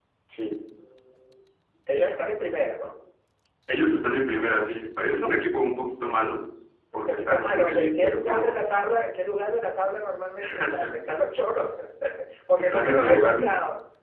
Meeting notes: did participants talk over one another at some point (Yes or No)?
Yes